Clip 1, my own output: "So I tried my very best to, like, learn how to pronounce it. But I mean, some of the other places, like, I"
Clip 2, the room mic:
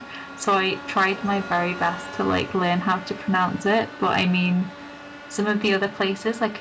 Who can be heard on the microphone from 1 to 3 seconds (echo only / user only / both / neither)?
echo only